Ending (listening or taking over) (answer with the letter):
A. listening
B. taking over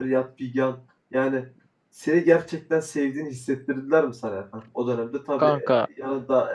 A